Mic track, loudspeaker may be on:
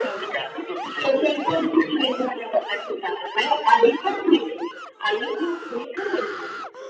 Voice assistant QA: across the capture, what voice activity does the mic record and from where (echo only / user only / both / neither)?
echo only